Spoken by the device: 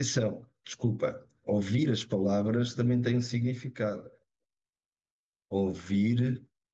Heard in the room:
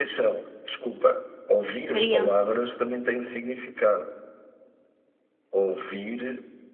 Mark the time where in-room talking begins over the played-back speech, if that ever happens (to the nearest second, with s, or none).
2 s